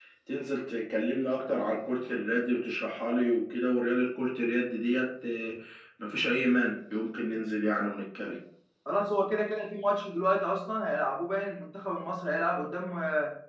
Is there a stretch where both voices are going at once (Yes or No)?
No